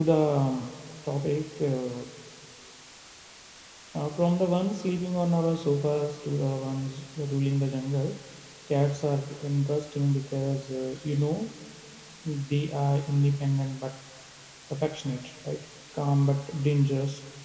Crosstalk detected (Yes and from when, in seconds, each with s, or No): No